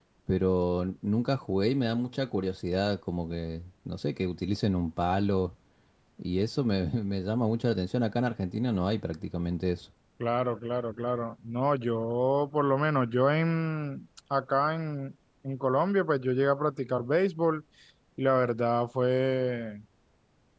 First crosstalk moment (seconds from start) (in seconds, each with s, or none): none